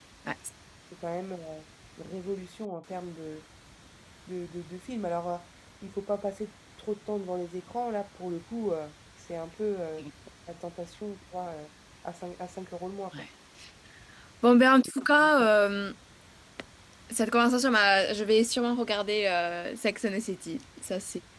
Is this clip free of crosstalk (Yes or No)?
Yes